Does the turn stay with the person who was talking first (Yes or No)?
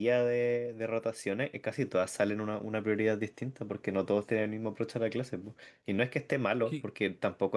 Yes